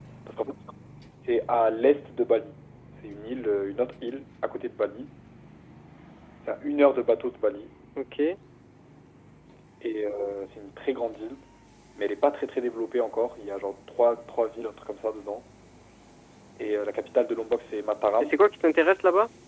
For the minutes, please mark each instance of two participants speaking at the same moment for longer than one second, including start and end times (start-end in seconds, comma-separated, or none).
none